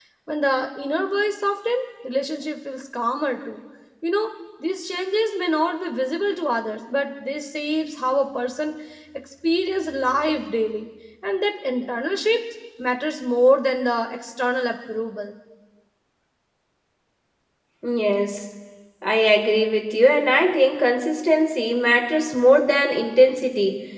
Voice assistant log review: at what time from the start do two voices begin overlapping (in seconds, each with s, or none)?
none